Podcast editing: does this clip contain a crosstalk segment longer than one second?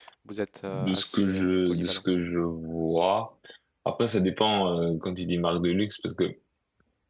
Yes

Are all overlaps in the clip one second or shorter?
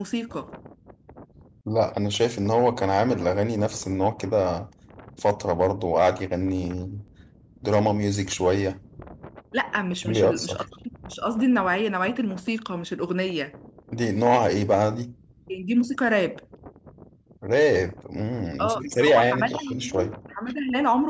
No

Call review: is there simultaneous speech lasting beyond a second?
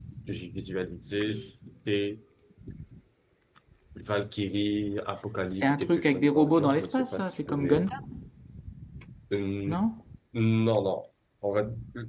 Yes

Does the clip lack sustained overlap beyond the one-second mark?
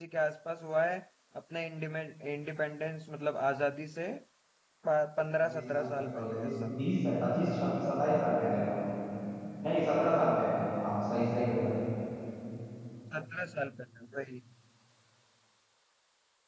No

